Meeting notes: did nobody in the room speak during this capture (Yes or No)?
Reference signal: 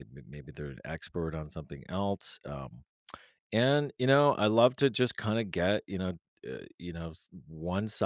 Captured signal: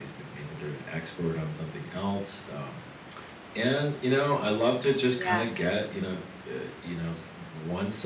No